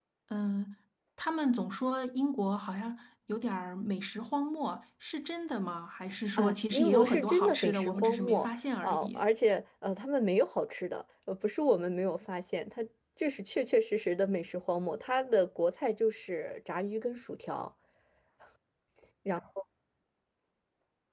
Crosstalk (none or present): present